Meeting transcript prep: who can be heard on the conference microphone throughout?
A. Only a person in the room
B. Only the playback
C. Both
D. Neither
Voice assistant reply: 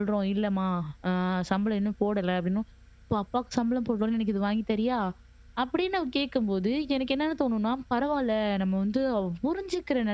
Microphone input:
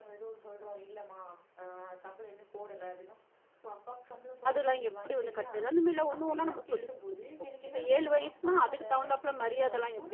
C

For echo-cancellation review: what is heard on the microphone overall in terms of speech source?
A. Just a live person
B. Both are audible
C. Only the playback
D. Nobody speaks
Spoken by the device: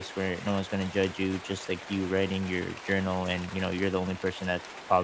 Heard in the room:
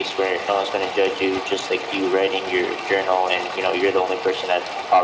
C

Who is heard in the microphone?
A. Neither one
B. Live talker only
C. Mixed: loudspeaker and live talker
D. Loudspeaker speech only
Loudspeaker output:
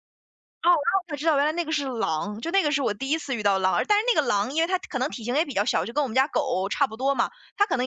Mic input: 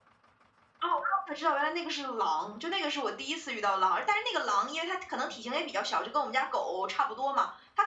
D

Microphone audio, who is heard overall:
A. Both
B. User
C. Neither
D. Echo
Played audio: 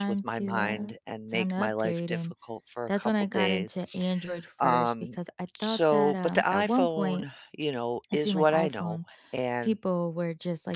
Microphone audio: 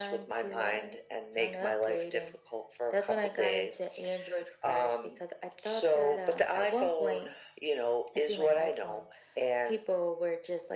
D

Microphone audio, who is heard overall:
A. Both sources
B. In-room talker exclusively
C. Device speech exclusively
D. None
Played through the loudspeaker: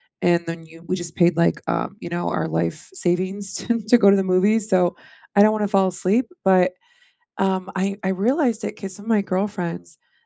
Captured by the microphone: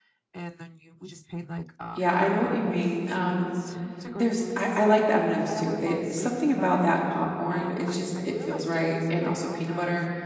A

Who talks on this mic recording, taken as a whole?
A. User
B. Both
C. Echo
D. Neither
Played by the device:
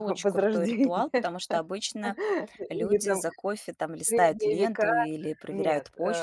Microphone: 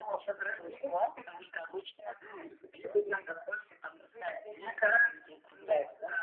C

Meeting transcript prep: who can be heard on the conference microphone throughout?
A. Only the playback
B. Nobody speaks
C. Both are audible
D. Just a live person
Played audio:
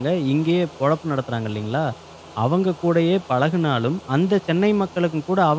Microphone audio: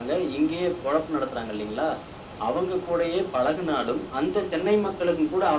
A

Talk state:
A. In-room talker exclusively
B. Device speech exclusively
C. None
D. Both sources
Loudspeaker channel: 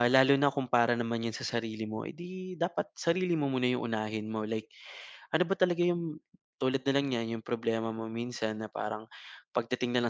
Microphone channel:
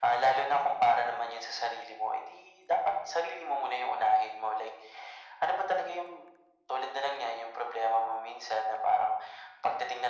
B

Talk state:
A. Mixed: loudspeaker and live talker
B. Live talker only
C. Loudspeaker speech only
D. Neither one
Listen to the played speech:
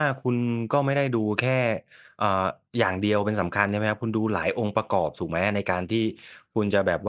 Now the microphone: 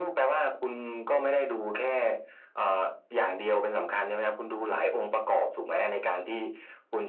C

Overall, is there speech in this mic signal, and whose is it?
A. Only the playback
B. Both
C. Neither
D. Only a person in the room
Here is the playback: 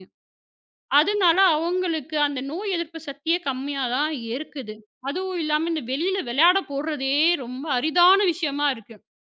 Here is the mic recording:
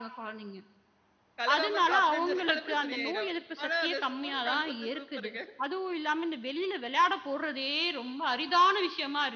B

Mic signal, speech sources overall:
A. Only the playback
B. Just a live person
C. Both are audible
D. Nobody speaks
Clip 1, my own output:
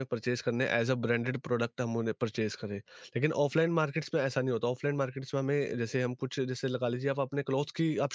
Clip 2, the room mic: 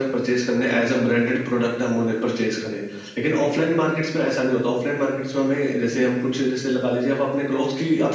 A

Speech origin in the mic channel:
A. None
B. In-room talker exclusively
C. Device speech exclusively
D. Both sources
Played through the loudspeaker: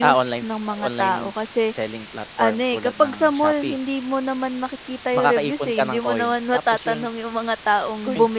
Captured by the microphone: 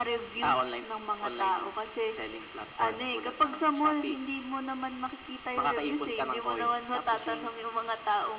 C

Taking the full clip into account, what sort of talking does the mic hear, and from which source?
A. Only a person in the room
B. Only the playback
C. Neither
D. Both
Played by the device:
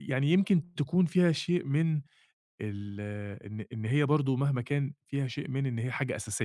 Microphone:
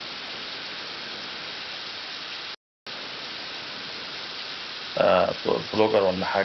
A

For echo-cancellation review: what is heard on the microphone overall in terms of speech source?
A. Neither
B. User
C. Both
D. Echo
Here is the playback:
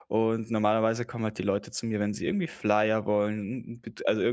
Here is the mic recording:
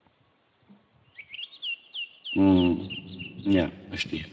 B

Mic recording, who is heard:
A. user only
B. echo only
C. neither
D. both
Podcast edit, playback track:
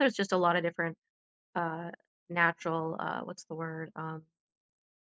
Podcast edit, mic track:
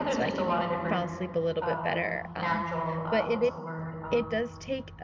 D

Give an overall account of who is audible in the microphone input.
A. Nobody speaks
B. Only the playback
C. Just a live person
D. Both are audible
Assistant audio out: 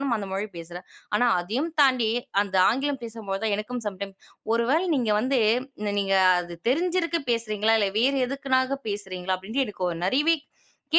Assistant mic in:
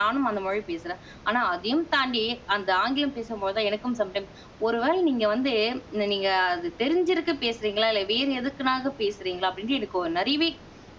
B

